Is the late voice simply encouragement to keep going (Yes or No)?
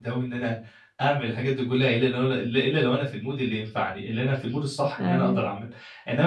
Yes